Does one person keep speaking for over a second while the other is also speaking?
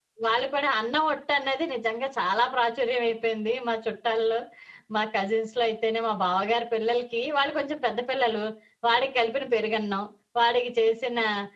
No

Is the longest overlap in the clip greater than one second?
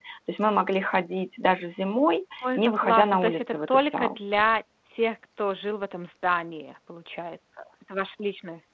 Yes, from 2.4 s

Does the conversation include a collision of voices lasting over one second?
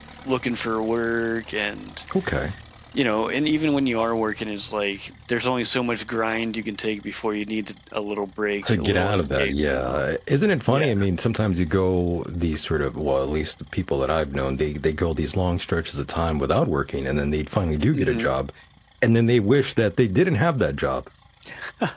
Yes, from 8.7 s

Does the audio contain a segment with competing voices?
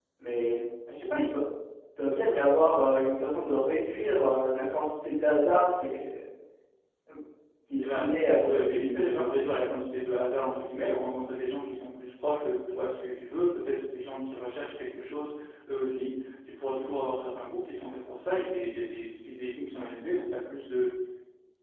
Yes, from 7.8 s

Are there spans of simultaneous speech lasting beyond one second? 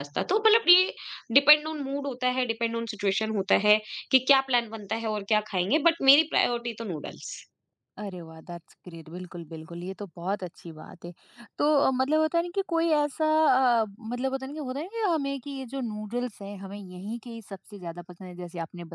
No

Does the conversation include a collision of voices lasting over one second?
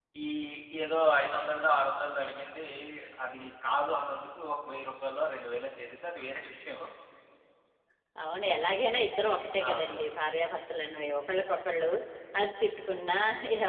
No

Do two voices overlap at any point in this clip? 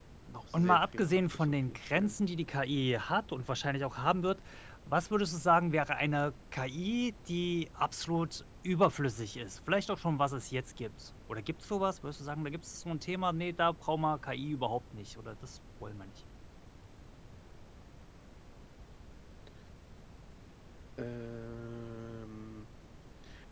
Yes, from 0.5 s

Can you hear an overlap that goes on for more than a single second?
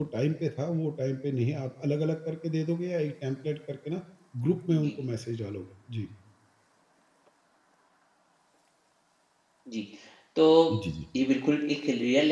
No

